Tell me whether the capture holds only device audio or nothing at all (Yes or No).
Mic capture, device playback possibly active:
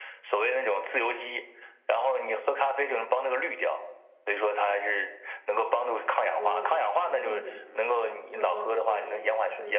No